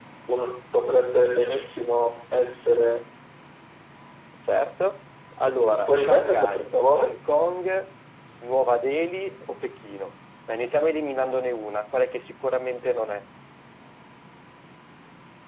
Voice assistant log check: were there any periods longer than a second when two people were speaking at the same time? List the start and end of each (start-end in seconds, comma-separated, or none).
5.6-7.1